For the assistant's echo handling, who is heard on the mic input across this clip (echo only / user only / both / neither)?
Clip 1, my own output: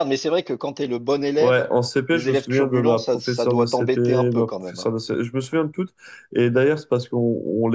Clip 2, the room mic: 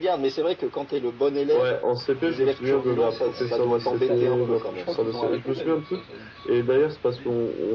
both